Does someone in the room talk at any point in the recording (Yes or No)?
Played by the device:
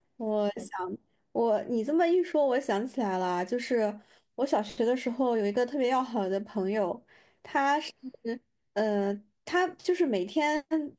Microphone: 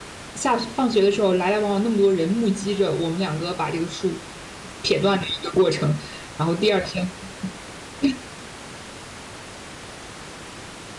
Yes